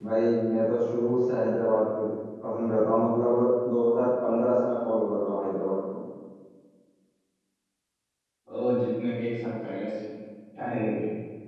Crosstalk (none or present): none